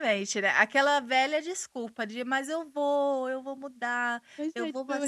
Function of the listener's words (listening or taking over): taking over